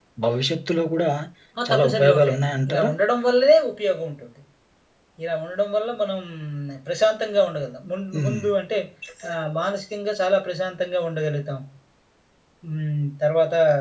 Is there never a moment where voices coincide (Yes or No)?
No